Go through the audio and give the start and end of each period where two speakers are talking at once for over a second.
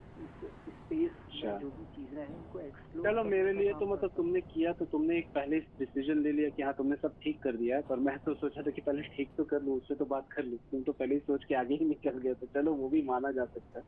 3.0-4.3

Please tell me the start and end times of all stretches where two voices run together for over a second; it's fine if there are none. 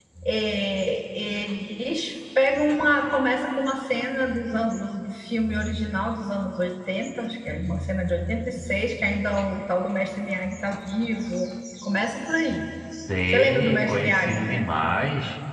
13.3-14.7

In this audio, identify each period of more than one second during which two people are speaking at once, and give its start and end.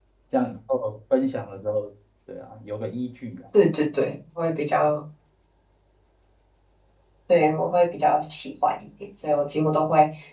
none

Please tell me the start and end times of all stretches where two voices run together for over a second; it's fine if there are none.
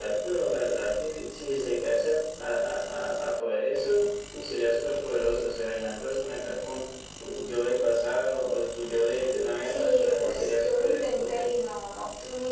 9.6-11.5

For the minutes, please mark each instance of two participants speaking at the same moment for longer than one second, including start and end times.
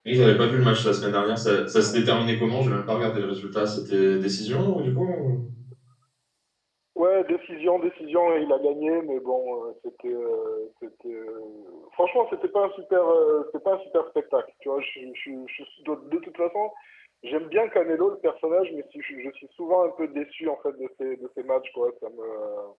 none

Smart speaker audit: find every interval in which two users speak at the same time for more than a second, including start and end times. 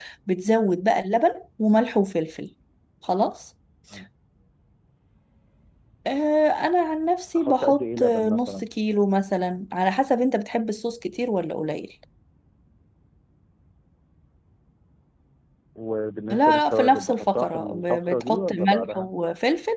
7.4-8.7, 16.3-19.1

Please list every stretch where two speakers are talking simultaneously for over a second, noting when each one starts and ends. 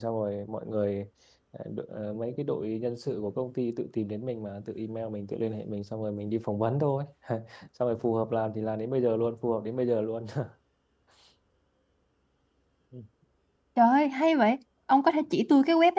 none

